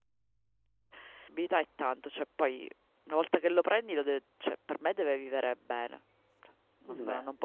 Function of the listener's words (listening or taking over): listening